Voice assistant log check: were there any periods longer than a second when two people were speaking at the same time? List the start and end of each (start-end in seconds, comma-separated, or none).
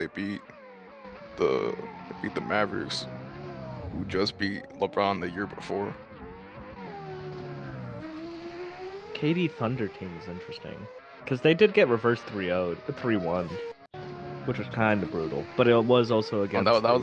none